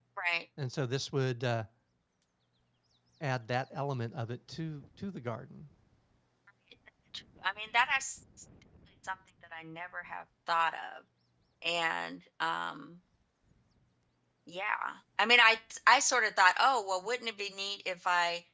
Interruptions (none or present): none